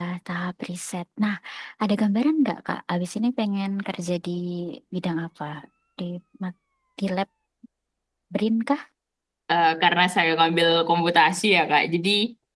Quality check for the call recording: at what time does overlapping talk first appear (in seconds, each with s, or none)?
none